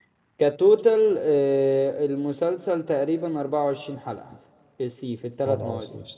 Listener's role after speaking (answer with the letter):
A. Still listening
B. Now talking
B